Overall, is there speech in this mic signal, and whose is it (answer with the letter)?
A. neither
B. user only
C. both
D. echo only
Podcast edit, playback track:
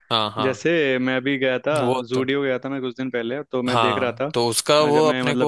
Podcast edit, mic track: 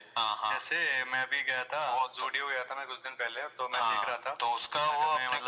D